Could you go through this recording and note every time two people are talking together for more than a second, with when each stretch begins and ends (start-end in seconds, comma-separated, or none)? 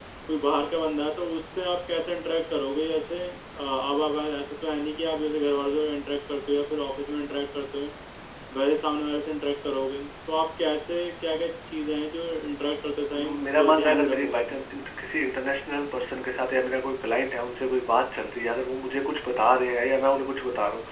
13.1-14.6